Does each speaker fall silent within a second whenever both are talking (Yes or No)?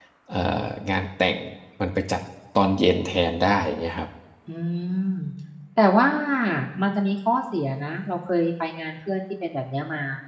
Yes